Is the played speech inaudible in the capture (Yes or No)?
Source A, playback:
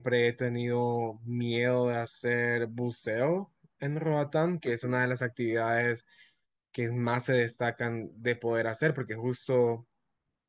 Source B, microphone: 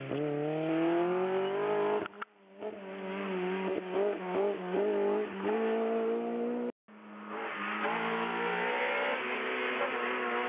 Yes